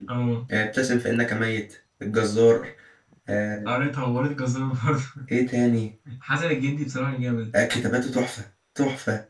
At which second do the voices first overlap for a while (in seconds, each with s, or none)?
none